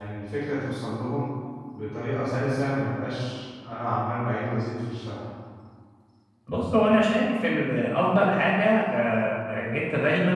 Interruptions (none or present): none